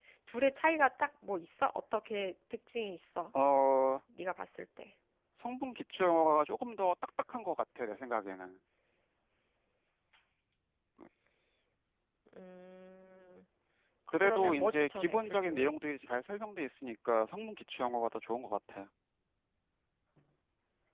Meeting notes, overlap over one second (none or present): present